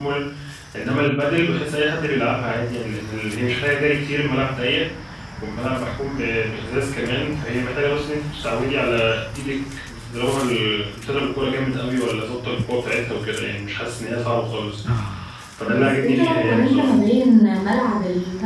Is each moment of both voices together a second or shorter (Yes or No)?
No